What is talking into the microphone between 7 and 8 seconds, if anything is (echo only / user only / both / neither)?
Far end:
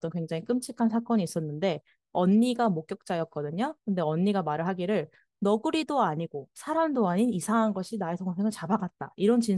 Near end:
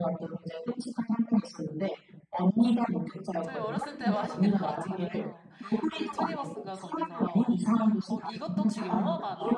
both